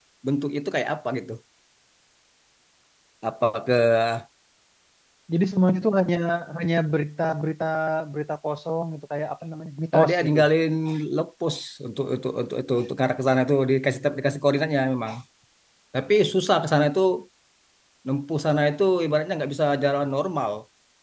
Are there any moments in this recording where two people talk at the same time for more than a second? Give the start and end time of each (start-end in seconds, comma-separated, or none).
none